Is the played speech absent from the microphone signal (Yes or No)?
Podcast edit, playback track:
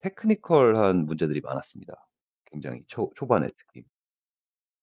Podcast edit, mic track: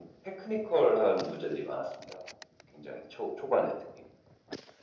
No